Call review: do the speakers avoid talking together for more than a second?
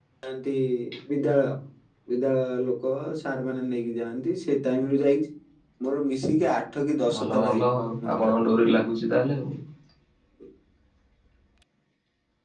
No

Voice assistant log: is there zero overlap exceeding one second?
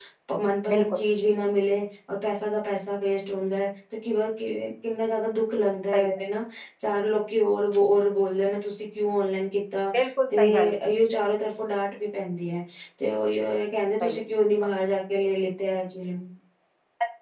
Yes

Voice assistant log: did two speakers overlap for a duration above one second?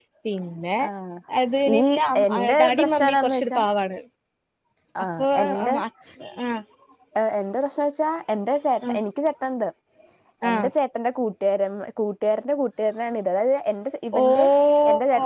Yes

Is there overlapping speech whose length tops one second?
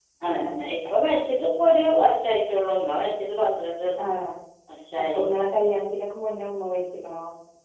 No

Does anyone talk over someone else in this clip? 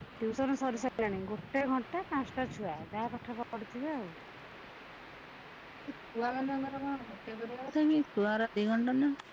No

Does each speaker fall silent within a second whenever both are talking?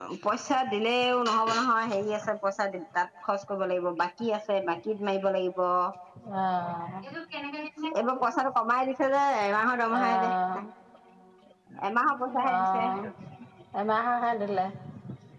Yes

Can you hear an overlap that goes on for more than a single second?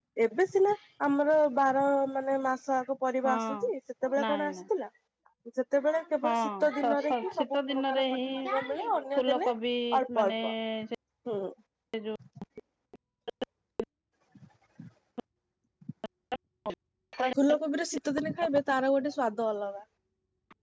Yes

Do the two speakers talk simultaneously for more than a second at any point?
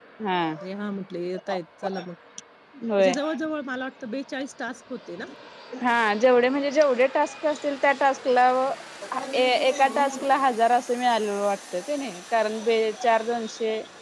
No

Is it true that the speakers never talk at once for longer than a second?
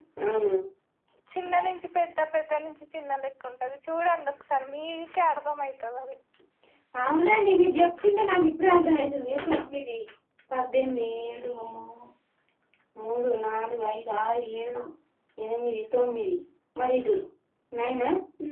Yes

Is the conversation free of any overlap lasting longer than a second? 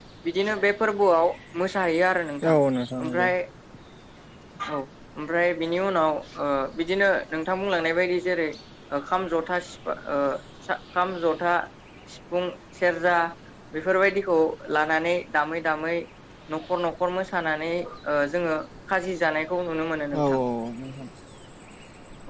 Yes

